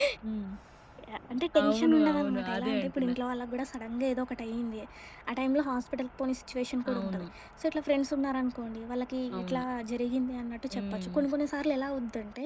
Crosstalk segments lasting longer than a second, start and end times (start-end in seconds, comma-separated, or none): 1.6-3.1